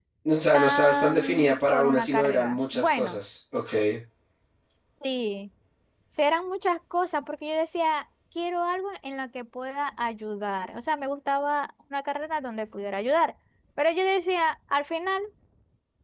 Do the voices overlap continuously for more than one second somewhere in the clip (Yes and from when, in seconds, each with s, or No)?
Yes, from 0.5 s